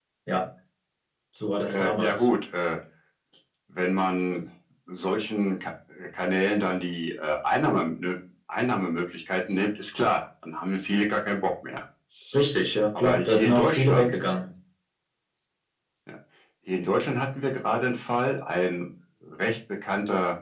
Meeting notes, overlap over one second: present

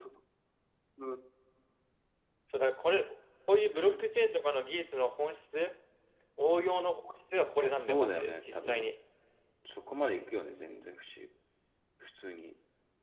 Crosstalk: present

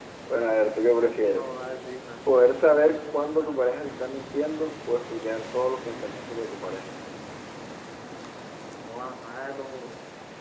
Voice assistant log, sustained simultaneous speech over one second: none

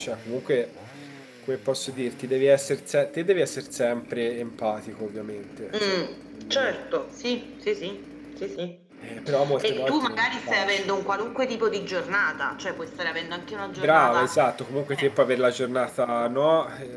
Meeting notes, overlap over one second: present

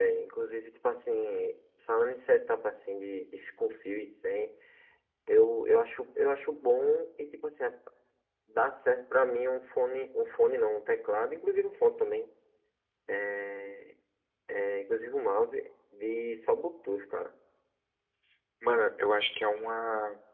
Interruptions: none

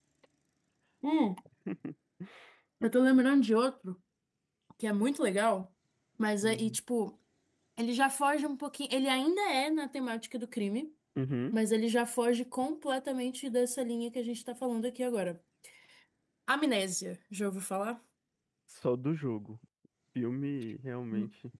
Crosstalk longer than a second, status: none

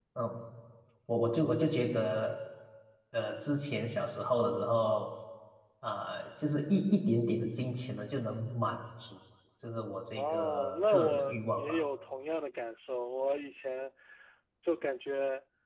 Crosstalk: present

